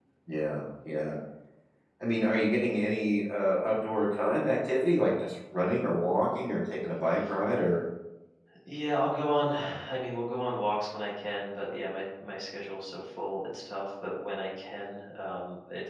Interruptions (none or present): none